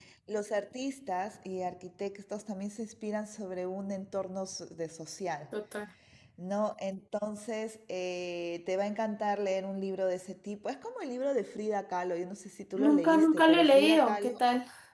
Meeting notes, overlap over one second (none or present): present